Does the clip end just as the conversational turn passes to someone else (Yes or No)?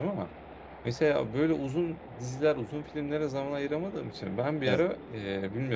No